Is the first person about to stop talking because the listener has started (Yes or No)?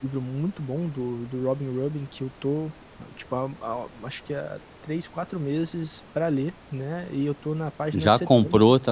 Yes